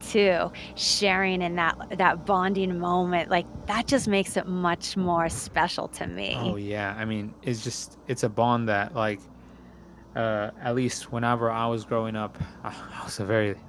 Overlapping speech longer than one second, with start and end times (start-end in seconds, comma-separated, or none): none